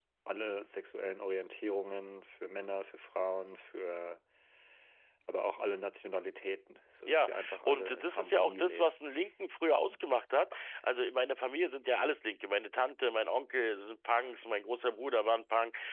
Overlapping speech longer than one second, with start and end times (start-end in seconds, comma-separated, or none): 7.1-8.9